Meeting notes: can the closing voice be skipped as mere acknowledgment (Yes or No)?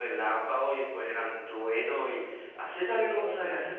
Yes